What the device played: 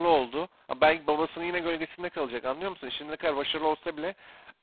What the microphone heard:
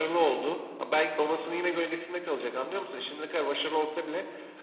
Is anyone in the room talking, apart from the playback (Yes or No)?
No